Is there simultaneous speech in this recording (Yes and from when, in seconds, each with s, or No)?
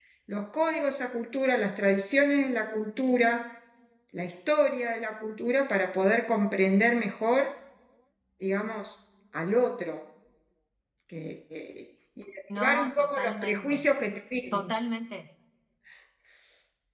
Yes, from 12.6 s